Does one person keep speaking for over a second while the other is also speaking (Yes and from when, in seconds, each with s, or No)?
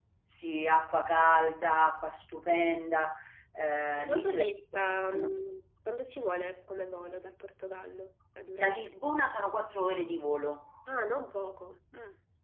Yes, from 4.0 s